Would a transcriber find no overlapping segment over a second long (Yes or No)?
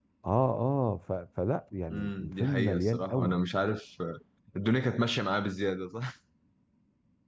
No